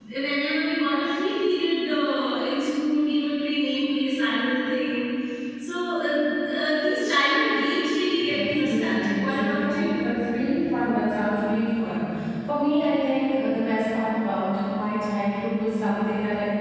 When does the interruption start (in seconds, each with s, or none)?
8.2 s